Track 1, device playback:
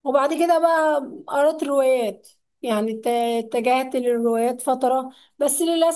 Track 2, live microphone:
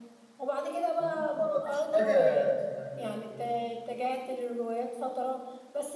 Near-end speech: present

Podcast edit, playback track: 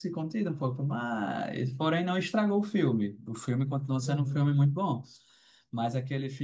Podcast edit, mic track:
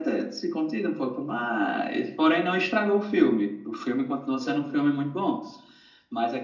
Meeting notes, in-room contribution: none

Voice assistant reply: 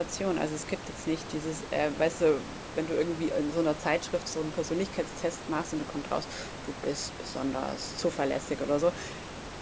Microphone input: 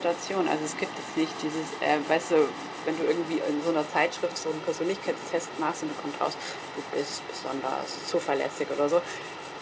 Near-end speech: none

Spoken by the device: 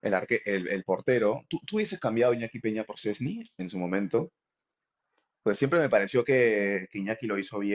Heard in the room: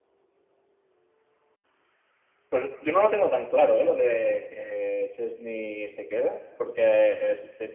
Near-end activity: present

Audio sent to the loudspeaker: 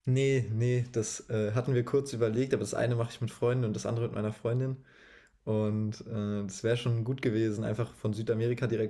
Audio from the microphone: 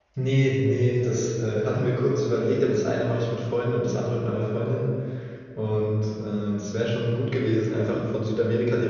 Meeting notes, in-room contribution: none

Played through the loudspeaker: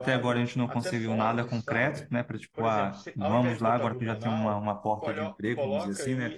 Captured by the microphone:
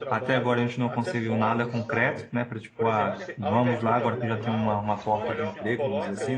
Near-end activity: present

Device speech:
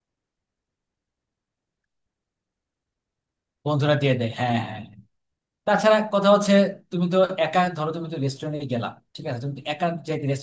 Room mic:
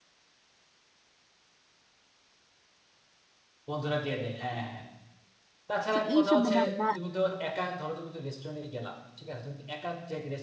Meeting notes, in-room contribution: present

